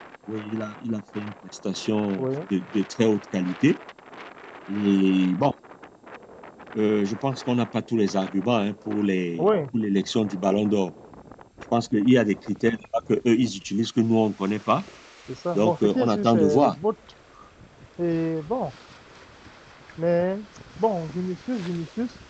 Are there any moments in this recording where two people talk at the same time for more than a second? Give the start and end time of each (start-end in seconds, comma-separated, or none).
15.6-16.8